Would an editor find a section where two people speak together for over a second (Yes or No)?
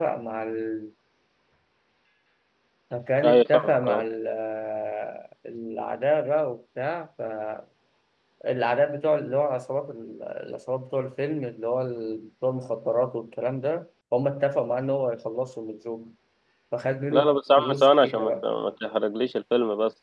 Yes